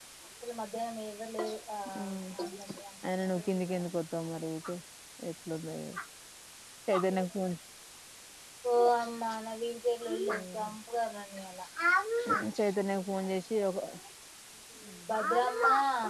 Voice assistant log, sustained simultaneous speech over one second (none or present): none